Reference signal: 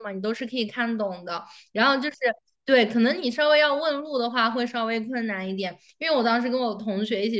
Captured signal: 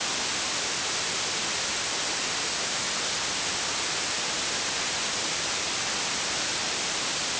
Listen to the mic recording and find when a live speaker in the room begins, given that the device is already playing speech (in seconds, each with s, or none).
none